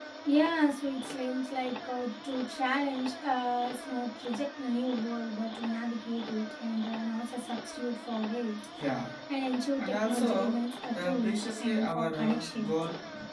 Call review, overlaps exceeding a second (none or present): present